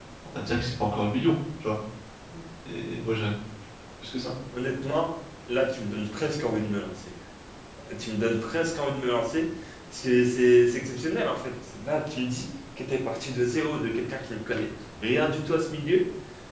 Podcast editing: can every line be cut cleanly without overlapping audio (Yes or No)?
Yes